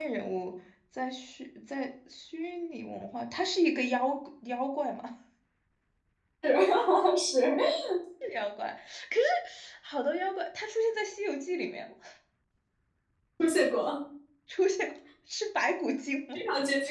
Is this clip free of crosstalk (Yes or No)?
Yes